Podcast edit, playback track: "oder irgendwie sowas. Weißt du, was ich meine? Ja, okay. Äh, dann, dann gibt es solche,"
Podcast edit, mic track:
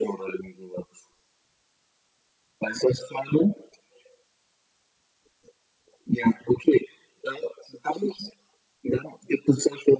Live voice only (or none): none